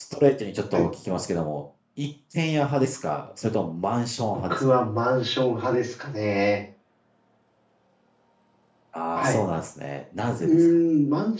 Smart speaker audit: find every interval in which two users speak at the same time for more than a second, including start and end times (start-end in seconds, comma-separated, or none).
none